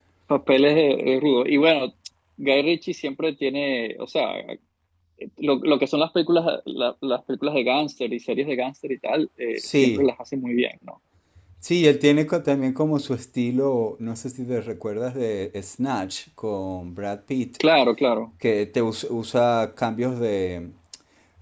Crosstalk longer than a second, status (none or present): none